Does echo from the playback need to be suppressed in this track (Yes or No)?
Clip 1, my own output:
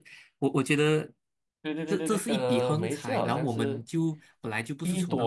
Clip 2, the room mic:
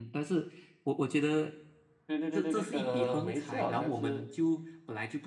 Yes